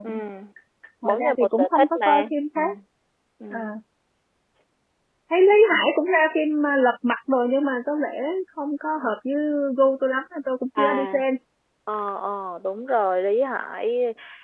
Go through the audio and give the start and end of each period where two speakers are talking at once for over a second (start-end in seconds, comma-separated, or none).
1.0-2.6